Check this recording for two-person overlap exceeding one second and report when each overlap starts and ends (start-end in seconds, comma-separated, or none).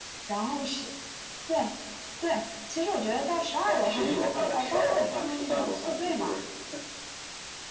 3.7-6.4